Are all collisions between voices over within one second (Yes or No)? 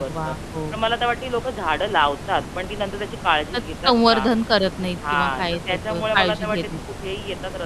No